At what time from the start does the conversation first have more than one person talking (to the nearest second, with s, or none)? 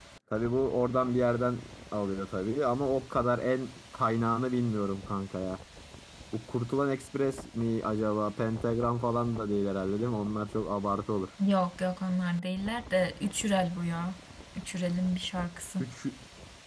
none